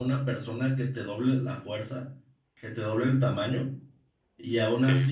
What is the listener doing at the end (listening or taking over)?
listening